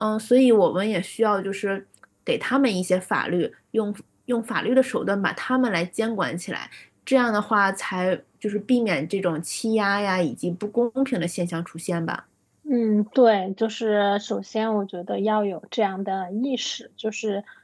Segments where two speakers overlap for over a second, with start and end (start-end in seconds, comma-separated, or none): none